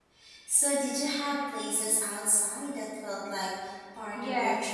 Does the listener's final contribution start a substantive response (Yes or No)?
Yes